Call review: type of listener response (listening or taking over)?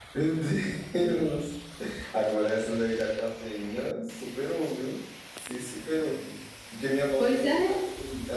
listening